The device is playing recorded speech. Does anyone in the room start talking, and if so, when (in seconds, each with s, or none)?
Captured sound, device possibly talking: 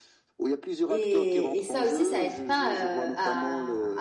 0.9 s